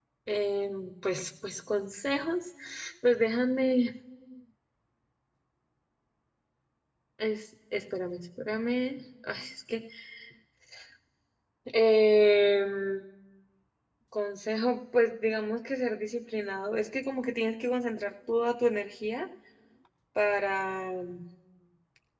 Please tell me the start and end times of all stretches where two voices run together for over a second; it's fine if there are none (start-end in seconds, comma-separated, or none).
none